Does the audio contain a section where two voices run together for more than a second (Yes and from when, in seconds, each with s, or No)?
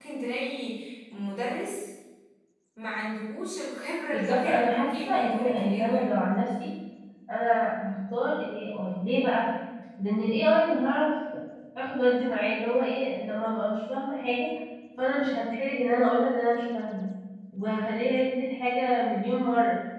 Yes, from 4.1 s